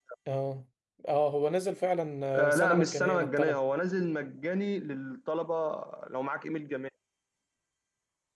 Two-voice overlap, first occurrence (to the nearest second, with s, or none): 2 s